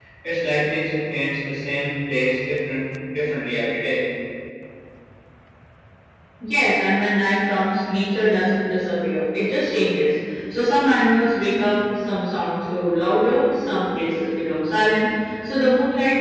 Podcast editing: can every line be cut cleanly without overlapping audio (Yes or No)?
Yes